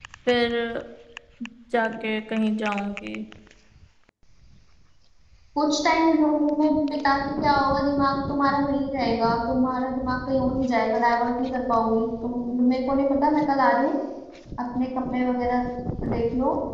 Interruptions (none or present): none